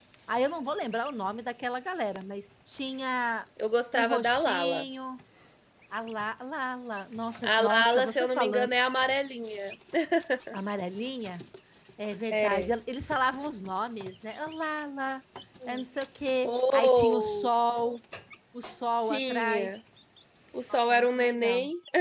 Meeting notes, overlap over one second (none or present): present